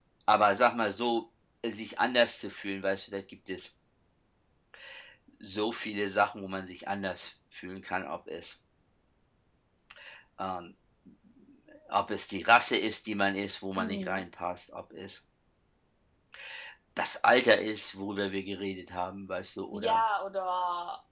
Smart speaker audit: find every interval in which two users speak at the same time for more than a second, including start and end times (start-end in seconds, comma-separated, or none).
none